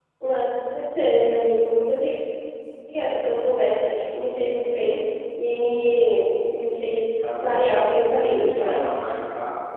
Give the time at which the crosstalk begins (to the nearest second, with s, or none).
7 s